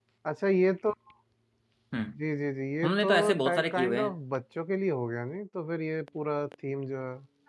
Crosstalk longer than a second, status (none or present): present